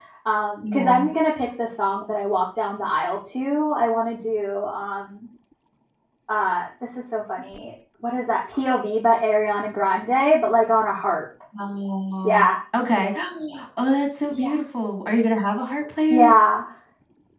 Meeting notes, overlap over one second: none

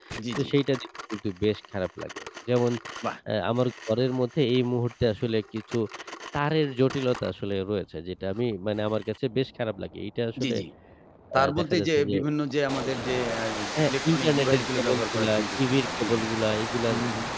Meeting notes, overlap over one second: present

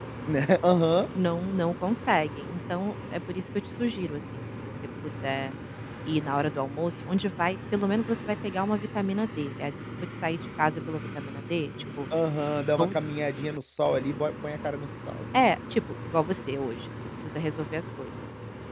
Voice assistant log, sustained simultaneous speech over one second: none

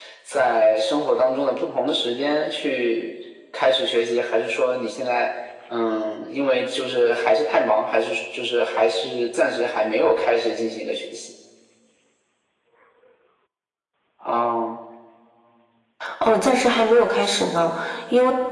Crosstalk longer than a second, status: none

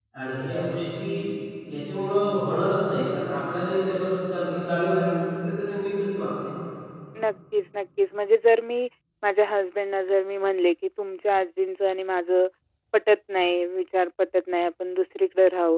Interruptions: none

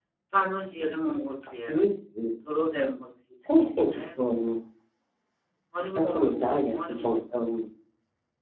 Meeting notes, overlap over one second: present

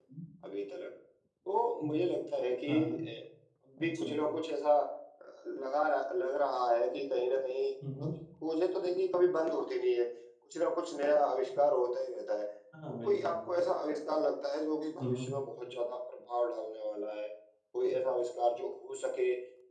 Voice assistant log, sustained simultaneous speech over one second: none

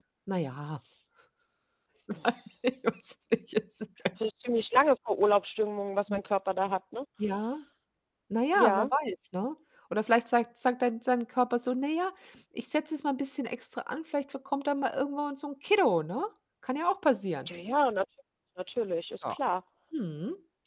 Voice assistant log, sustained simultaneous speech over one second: none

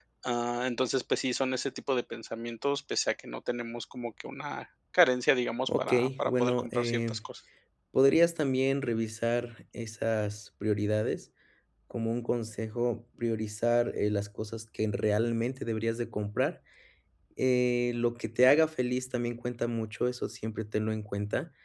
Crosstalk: present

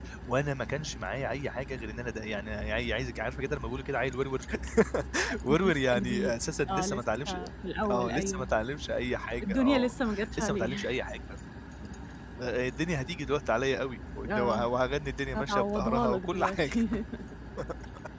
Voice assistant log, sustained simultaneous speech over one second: present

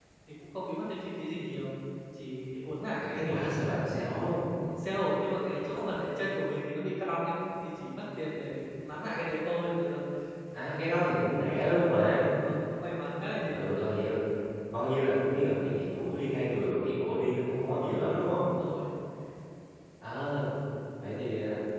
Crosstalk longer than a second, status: none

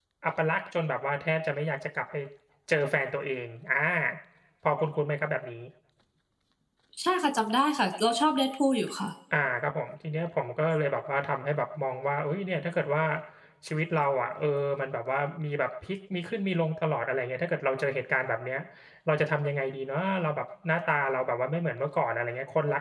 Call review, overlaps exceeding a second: none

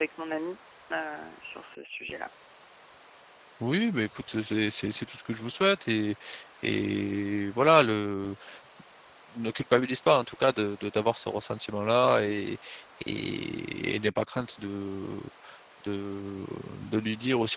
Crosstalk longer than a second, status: none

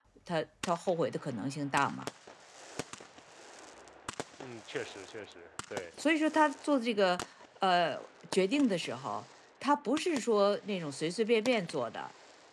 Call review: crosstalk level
none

